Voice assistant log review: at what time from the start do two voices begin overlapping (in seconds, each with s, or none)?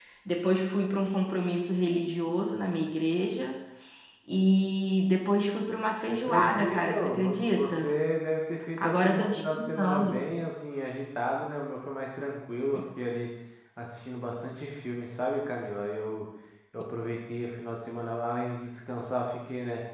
6.1 s